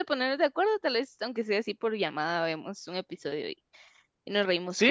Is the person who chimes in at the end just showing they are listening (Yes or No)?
No